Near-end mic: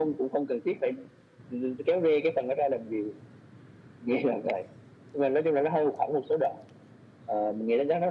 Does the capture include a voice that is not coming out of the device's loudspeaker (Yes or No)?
No